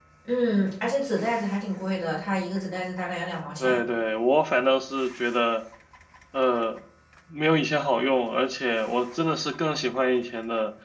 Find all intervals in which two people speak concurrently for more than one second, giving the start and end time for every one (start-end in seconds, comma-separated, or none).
none